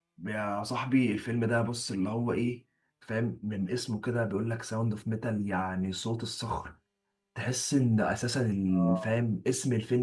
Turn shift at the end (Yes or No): No